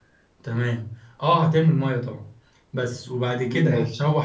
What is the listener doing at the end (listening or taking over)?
listening